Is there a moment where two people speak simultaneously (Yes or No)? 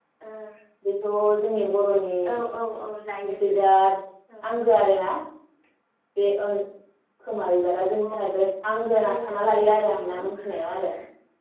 Yes